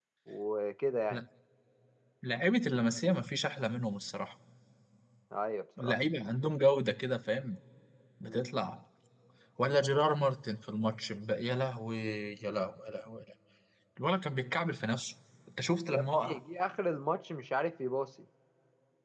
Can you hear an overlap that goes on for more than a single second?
No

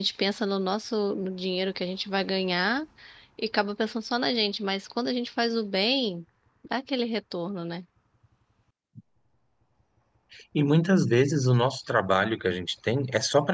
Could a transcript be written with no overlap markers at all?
Yes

